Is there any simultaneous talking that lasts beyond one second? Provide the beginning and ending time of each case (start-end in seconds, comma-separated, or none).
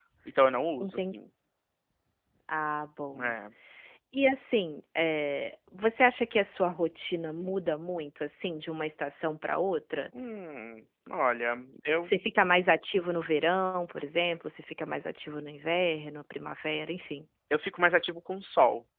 none